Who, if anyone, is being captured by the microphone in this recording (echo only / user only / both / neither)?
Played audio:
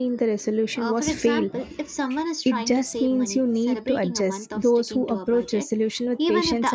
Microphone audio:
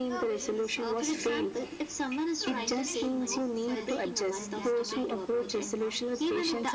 both